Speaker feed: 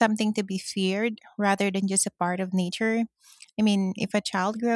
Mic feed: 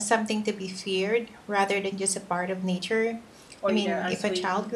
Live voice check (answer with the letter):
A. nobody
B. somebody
B